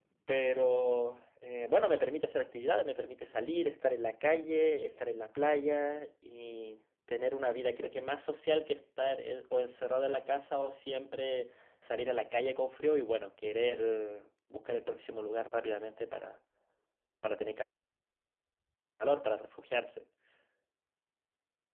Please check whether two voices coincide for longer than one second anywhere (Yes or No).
No